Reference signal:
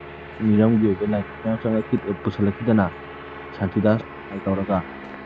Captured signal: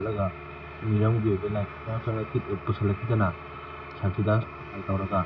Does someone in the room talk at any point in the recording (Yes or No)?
No